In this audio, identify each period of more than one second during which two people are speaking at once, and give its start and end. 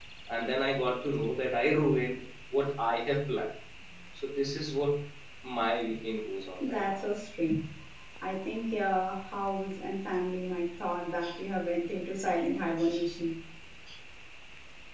none

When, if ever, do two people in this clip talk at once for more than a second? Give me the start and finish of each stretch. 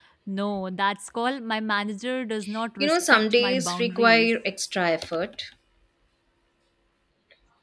2.8-4.3

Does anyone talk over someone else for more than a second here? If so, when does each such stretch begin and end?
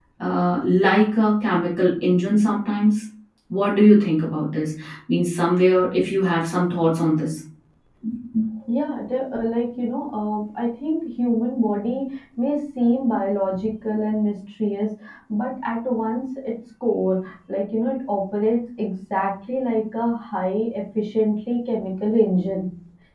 none

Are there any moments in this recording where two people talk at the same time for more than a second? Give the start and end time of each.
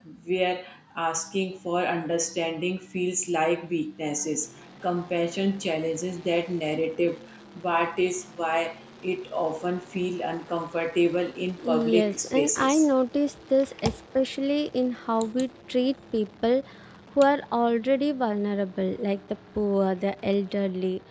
11.6-12.9

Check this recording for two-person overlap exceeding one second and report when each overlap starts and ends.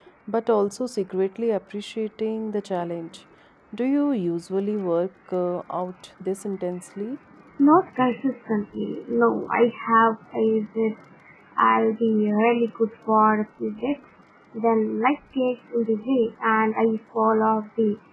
none

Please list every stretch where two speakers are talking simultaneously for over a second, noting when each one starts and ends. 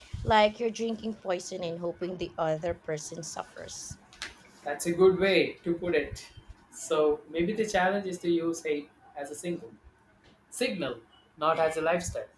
none

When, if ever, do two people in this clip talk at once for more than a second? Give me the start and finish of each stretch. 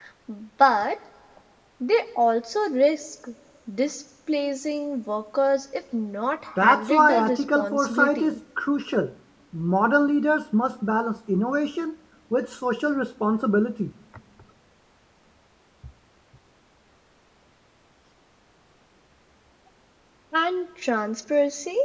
6.6-8.3

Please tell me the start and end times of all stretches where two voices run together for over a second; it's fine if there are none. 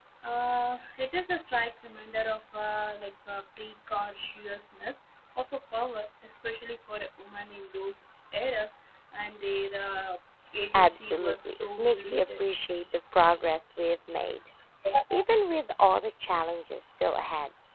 10.7-12.4

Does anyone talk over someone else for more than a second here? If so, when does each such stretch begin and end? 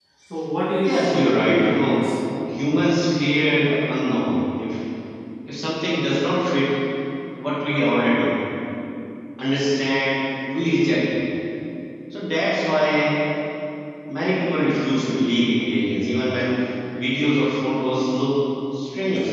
0.8-2.0

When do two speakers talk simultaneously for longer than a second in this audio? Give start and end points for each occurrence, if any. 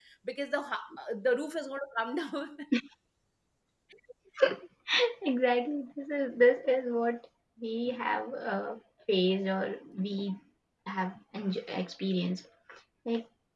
none

